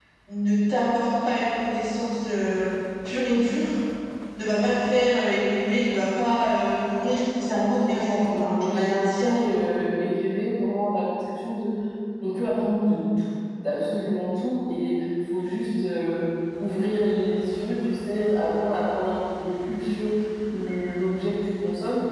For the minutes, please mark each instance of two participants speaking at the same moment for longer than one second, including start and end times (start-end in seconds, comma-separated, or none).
7.9-9.6